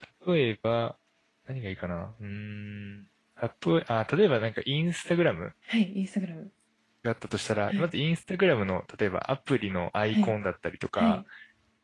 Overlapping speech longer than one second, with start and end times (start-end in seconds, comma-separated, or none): none